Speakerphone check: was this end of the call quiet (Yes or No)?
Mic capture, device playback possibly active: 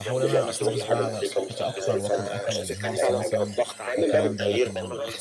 No